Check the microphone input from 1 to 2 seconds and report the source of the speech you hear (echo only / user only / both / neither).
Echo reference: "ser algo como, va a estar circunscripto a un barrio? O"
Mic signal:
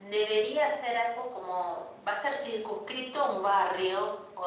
echo only